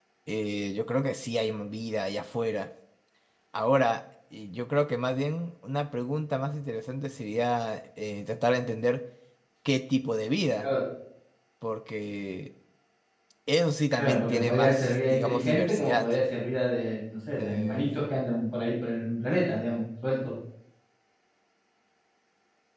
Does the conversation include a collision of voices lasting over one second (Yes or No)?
Yes